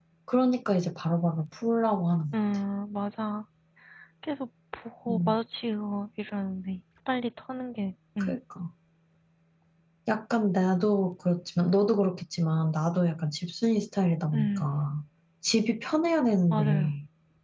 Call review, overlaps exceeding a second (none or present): none